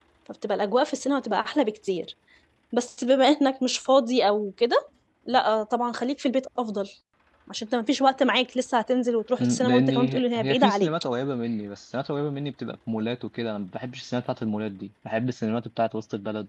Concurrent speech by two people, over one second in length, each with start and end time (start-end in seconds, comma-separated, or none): 9.4-10.9